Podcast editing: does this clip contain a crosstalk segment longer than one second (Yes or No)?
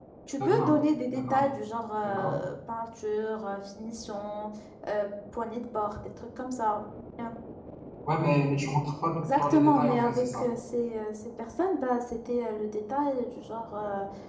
Yes